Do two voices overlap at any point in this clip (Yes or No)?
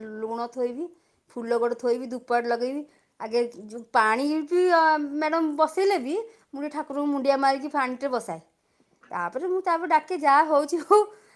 No